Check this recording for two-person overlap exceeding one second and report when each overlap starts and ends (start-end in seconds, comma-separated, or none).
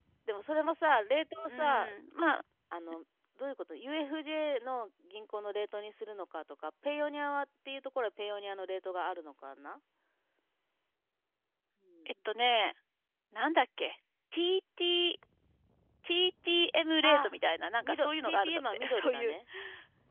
17.8-19.3